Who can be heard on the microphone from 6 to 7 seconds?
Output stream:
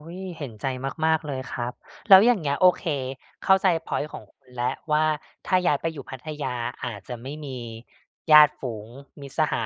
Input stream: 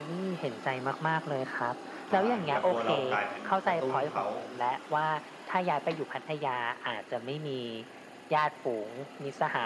echo only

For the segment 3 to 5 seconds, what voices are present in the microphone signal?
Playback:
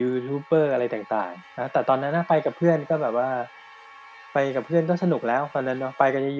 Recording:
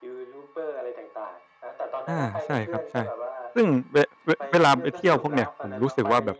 both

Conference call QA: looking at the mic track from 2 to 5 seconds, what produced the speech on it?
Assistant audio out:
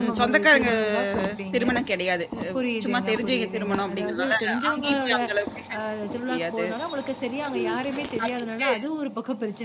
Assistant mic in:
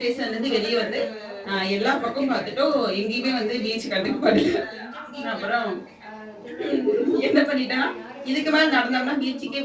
both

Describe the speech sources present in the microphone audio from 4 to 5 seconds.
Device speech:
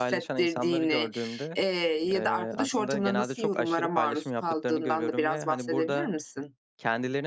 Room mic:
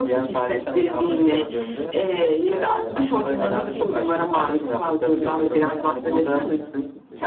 both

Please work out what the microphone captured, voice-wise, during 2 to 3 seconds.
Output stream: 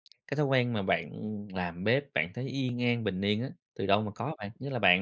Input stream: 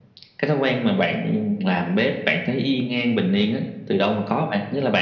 echo only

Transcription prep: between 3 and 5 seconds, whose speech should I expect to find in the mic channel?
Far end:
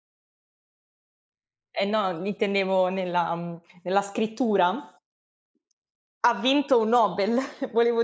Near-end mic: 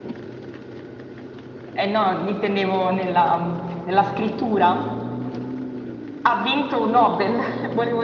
echo only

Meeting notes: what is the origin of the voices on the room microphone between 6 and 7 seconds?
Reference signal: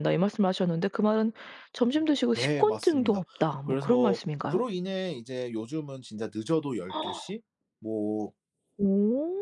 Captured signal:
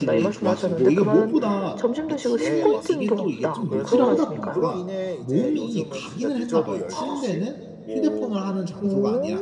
both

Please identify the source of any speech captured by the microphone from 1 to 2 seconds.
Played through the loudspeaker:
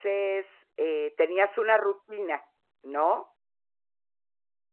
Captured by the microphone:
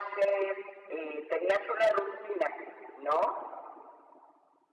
echo only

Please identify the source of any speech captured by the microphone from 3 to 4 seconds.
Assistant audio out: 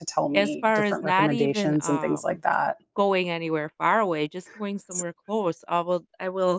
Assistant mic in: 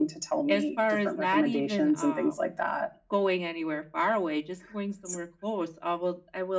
echo only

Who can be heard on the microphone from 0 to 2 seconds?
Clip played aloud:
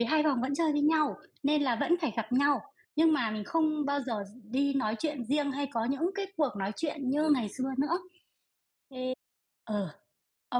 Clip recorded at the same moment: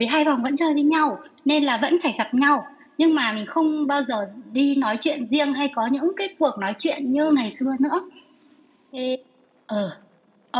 echo only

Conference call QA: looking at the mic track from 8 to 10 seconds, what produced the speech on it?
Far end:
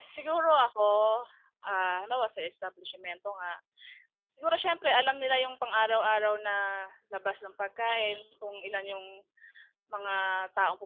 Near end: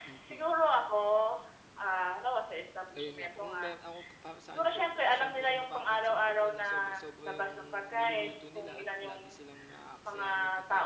both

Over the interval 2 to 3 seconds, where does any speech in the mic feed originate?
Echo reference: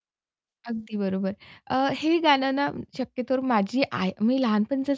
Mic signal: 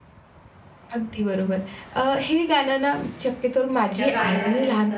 echo only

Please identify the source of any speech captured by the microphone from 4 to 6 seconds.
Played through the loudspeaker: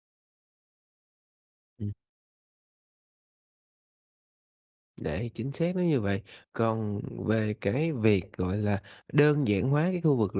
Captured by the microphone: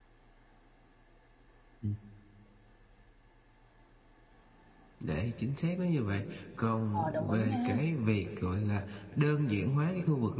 echo only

